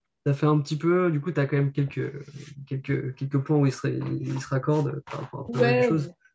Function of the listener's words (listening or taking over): taking over